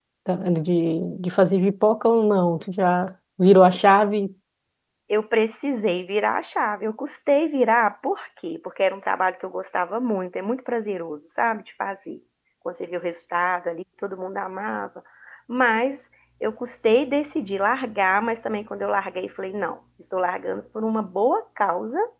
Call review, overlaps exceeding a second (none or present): none